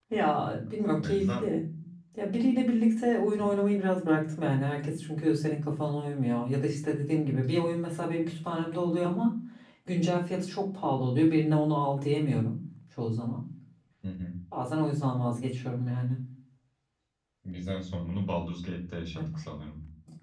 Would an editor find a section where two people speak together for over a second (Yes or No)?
No